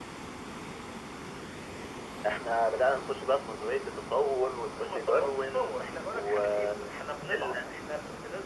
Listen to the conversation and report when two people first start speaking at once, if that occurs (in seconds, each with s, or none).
4.7 s